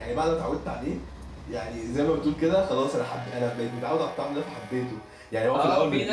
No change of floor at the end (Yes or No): No